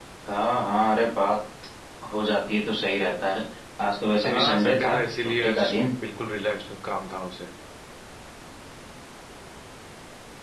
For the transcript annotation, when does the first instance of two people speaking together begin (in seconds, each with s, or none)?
4.2 s